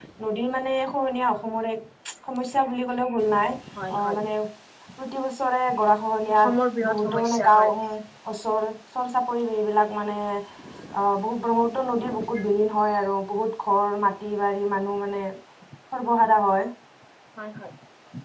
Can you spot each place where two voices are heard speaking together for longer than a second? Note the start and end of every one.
6.3-7.7

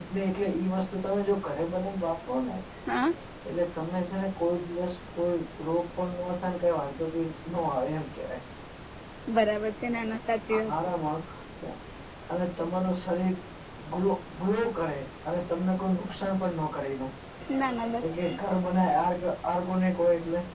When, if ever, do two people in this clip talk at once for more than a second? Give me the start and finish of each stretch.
none

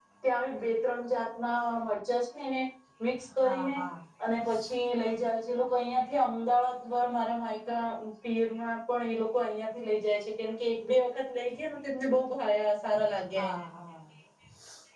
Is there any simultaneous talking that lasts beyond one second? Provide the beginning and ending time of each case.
none

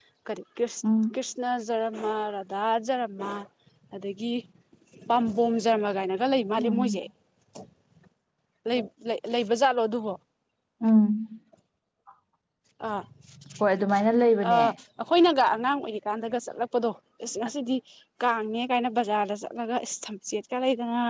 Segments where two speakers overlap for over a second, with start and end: none

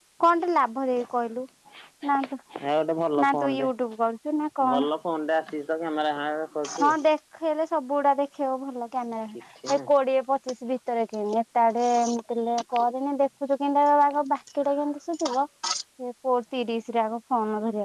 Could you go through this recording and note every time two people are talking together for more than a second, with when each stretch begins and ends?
none

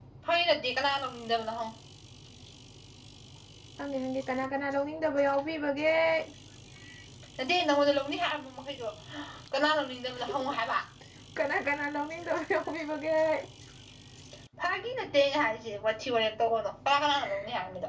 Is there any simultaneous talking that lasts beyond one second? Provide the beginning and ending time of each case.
none

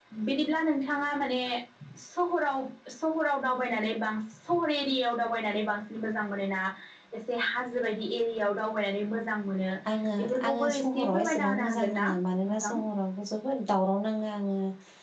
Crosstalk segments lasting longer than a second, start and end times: 10.2-12.1

